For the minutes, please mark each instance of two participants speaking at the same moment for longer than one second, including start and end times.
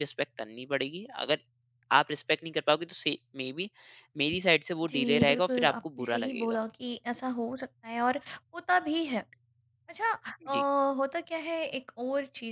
4.9-6.6

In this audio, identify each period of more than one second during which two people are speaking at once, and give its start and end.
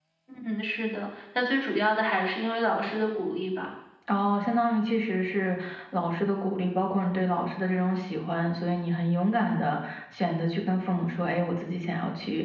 none

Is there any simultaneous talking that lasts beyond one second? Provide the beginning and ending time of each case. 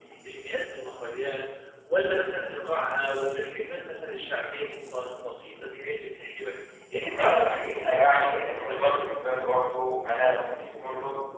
7.0-9.1

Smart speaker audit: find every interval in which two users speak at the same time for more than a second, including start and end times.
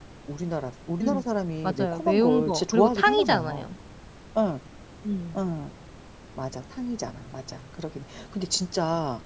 1.6-3.7

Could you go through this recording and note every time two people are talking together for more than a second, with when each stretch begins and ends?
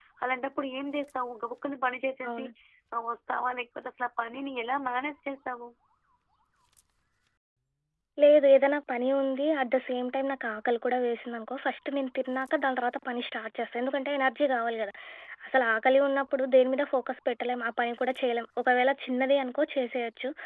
none

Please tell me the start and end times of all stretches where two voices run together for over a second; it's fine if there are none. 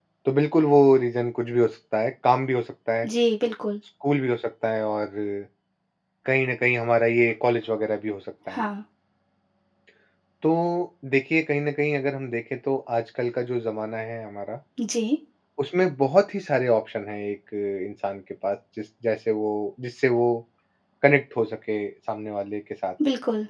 none

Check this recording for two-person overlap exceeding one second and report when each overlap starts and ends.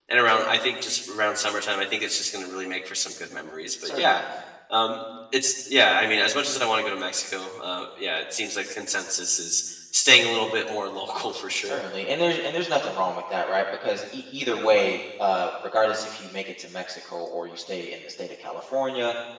none

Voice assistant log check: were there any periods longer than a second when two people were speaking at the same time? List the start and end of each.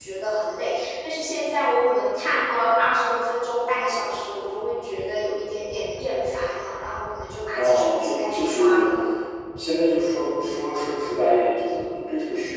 7.6-8.8

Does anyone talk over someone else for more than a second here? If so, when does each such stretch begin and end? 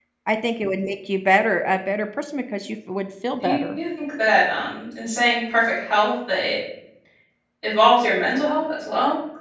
none

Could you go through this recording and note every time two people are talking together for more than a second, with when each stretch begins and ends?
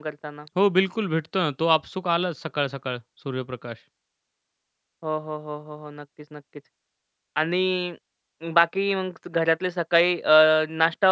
none

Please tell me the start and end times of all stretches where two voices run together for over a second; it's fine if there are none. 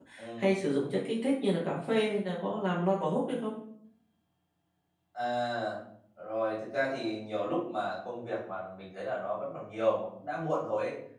none

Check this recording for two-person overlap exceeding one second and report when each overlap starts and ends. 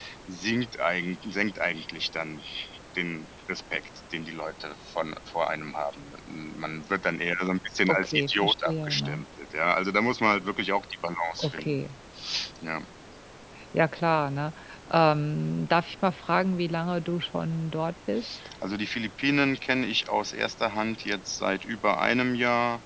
7.9-9.2

